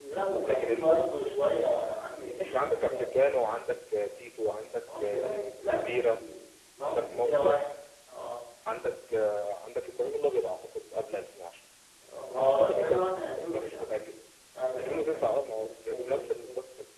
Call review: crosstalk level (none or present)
present